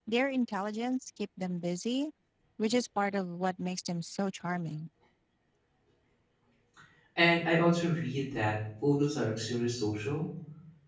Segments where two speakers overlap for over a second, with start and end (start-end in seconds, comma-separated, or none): none